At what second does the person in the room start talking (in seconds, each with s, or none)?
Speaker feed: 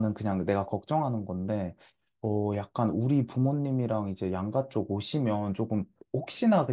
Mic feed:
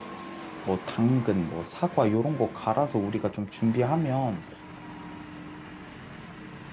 0.6 s